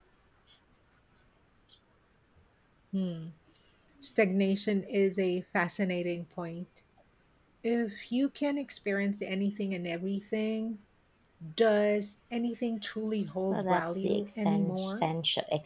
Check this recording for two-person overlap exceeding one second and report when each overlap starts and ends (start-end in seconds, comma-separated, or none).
13.5-15.1